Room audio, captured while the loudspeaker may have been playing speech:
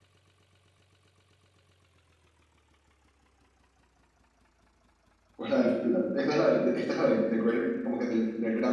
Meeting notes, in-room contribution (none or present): present